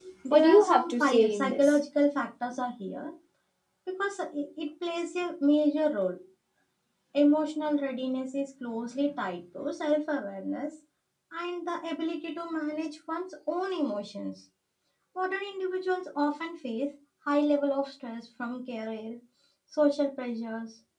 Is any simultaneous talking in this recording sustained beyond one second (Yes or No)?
Yes